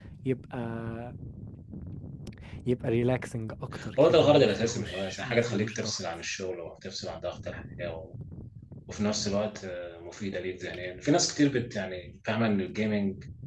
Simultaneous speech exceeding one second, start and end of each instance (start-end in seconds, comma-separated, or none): 4.0-6.0